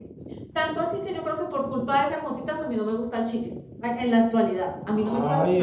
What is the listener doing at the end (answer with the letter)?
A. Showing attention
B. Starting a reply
B